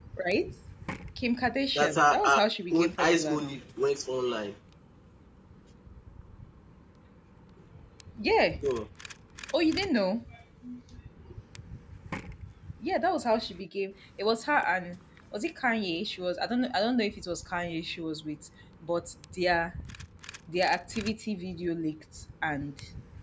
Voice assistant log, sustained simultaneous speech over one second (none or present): present